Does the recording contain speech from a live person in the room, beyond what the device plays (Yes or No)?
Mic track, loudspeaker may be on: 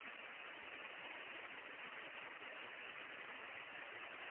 No